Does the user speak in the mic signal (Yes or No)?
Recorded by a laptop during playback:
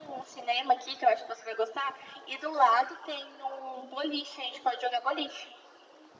No